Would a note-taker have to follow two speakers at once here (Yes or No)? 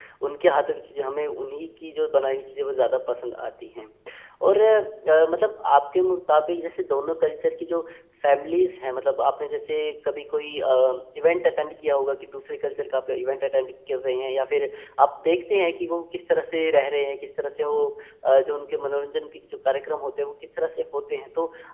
No